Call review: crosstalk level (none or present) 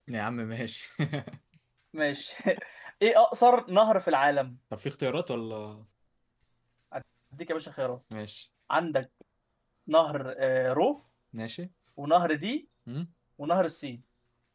none